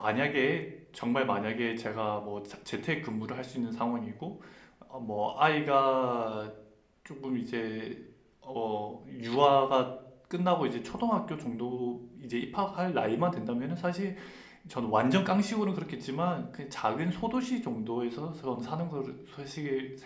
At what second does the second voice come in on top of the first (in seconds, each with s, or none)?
none